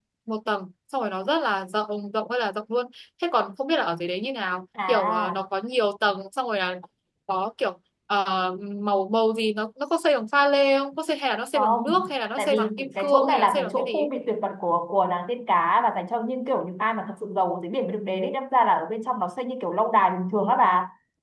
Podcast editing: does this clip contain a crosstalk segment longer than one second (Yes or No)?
Yes